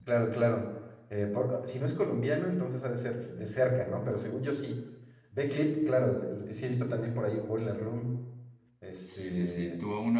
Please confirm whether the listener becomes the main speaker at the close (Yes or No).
Yes